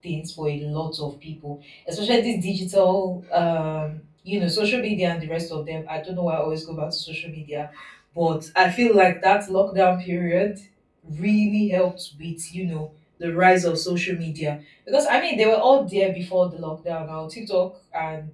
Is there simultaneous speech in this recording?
No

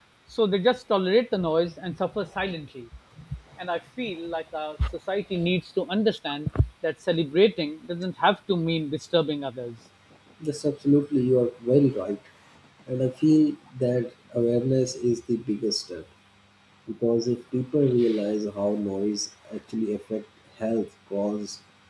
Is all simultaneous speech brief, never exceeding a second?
Yes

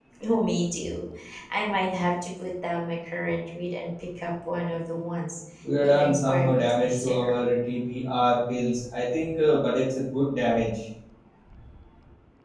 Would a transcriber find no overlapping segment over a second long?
No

